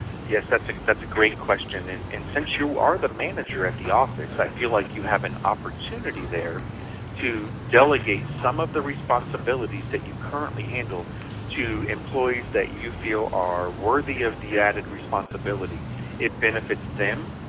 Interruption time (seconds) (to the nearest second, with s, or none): none